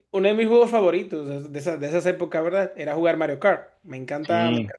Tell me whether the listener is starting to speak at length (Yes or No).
No